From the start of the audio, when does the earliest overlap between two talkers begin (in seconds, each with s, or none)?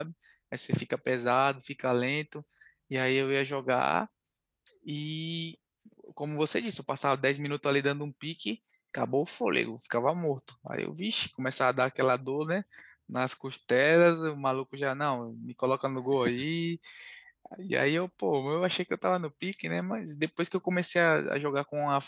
none